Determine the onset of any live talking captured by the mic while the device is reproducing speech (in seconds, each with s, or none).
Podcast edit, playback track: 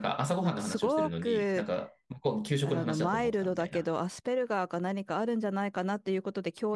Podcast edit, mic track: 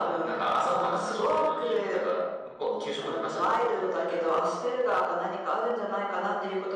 none